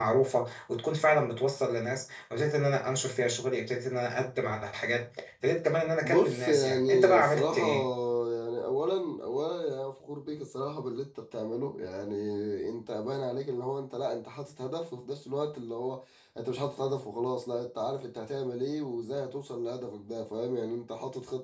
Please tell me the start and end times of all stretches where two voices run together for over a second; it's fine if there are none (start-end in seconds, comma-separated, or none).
6.0-7.7